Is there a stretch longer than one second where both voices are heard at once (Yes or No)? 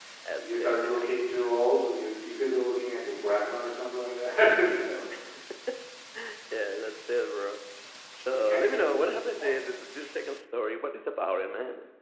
Yes